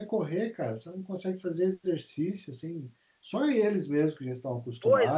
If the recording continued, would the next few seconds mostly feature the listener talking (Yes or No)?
Yes